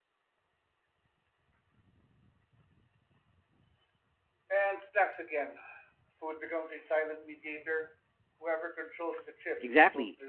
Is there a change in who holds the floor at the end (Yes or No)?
Yes